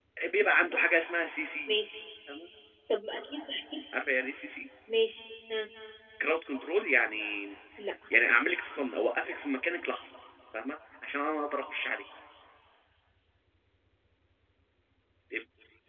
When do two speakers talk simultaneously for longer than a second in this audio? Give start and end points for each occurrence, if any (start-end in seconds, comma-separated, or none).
none